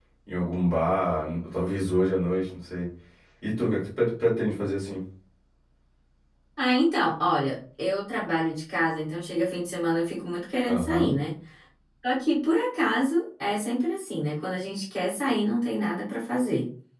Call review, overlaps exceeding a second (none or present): none